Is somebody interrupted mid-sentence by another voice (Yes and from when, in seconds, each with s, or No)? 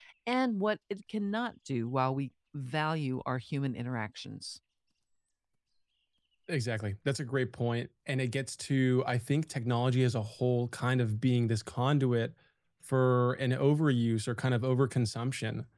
No